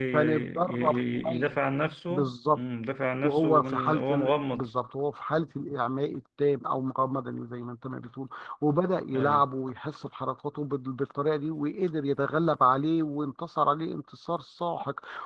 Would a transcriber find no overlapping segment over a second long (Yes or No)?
No